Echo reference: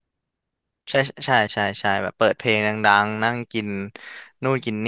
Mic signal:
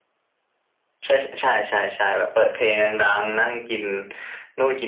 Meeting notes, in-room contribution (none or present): none